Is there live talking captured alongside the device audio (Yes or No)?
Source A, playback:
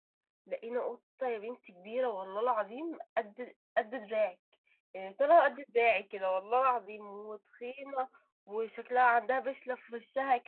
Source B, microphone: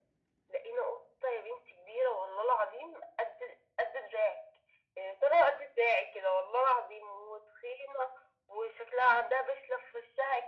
No